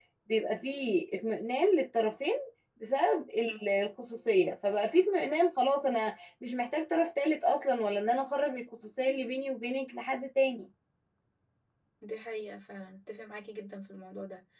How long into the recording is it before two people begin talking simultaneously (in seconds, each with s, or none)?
none